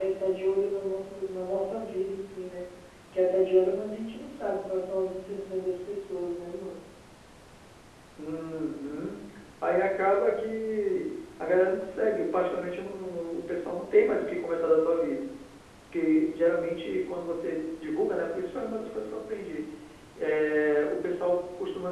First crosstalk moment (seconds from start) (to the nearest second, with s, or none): none